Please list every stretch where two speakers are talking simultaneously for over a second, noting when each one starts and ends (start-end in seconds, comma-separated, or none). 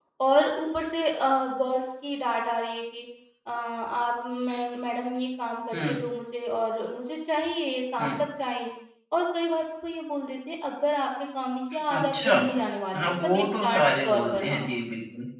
12.9-14.6